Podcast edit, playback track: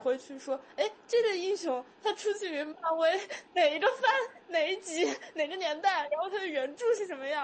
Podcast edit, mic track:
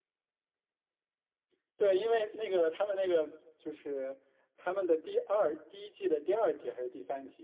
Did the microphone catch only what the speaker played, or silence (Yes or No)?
No